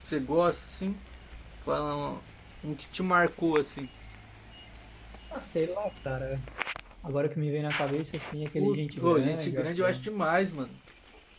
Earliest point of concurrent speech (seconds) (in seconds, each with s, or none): 8.6 s